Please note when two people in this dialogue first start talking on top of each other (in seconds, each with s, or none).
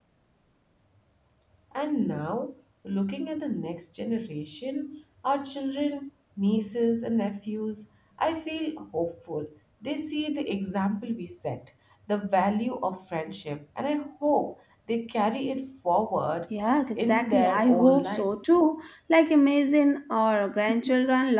17.0 s